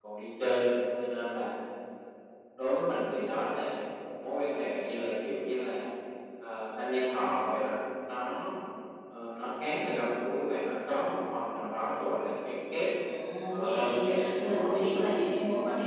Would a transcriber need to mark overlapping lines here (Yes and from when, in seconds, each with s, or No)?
Yes, from 13.6 s